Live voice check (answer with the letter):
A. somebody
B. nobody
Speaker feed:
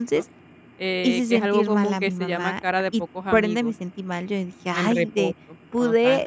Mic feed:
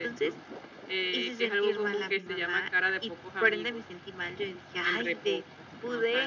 B